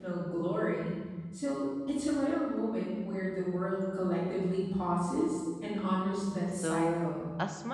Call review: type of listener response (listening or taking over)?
taking over